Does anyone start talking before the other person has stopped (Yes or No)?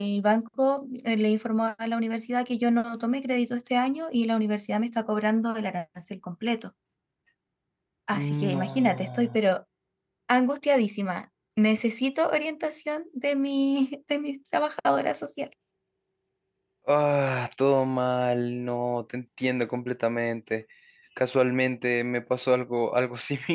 Yes